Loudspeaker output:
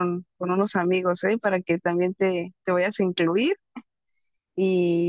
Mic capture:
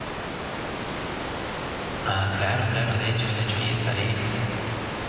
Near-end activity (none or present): present